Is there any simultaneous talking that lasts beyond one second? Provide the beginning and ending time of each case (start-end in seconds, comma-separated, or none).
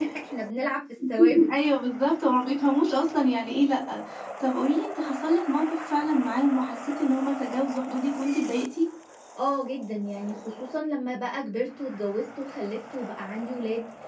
none